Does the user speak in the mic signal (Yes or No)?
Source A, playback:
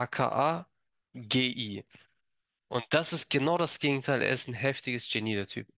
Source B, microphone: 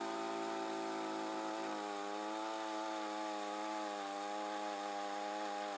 No